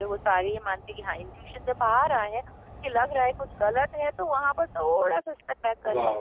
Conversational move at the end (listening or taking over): taking over